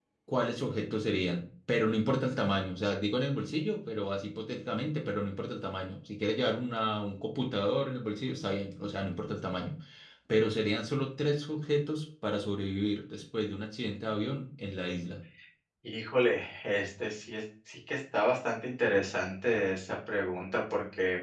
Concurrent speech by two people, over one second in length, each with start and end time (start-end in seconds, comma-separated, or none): none